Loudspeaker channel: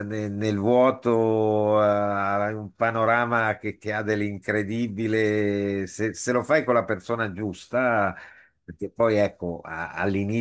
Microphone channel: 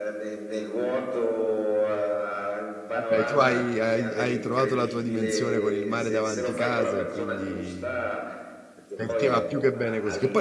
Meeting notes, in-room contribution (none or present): present